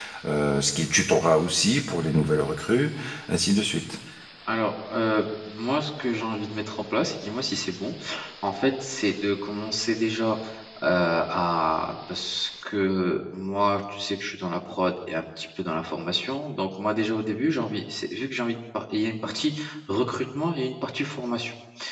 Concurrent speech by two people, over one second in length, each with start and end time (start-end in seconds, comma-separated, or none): none